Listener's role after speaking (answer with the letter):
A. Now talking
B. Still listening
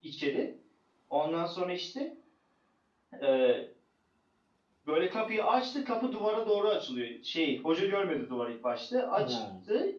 B